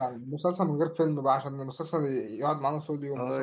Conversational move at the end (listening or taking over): taking over